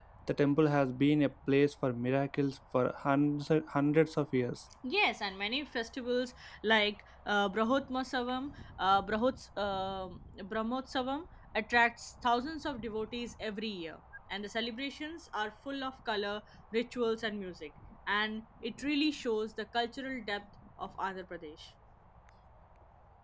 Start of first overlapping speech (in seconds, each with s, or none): none